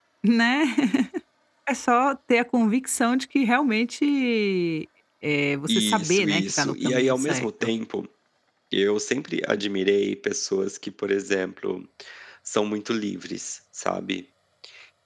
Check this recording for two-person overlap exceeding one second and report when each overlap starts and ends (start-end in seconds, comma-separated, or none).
5.7-7.7